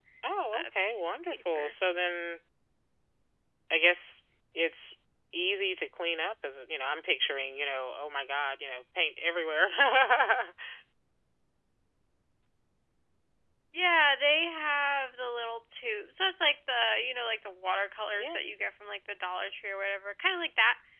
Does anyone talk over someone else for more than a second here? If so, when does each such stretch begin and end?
0.5-1.8

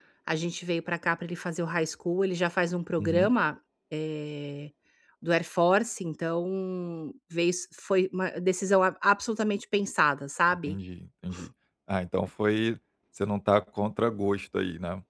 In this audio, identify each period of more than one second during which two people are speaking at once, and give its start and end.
none

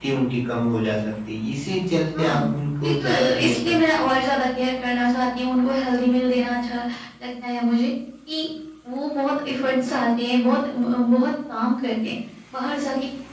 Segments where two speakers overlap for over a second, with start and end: 2.8-4.1

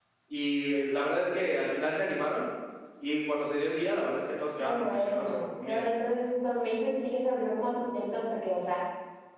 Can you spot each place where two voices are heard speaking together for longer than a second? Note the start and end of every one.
4.6-5.8

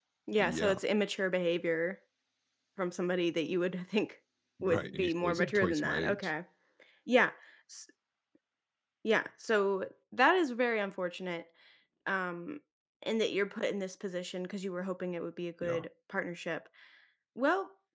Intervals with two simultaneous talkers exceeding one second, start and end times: 4.6-6.3

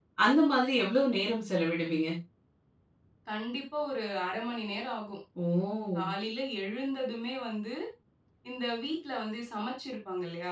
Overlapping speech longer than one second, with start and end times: none

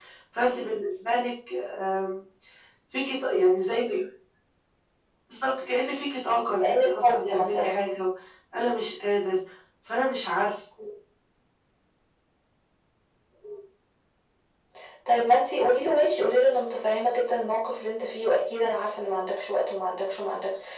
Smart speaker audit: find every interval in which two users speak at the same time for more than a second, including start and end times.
6.6-7.8

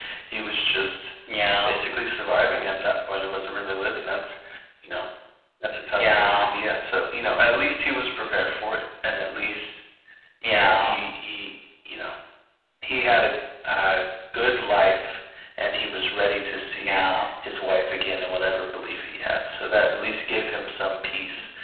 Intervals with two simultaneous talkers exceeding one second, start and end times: none

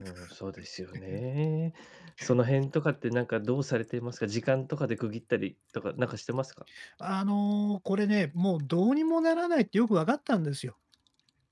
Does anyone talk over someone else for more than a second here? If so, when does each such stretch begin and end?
none

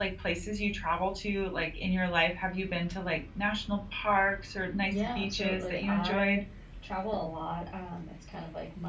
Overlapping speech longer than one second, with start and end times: 4.9-6.4

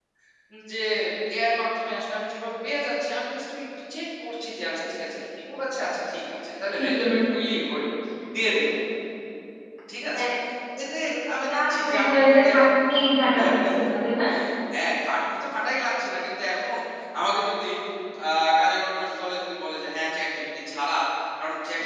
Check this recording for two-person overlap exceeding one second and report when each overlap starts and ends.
11.4-12.6

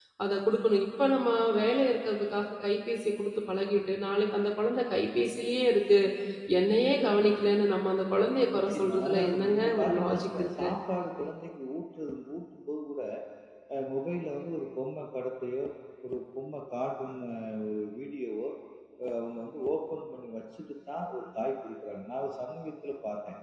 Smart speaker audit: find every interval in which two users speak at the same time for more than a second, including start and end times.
8.7-10.7

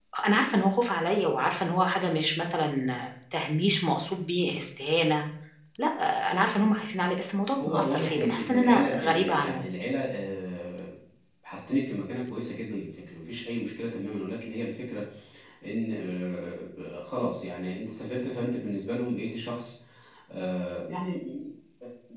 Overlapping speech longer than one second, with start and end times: 7.6-9.7

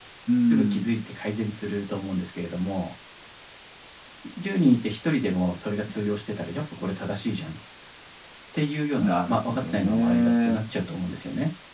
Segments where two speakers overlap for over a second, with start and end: 9.0-10.7

